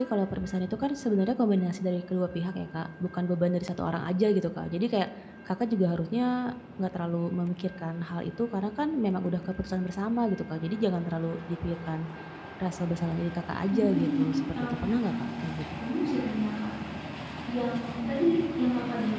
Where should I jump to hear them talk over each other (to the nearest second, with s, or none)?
14 s